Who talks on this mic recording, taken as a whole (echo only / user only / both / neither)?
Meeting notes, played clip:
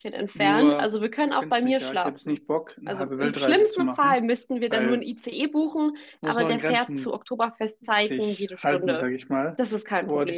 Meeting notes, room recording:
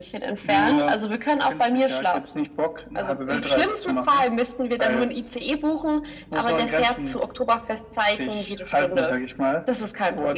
echo only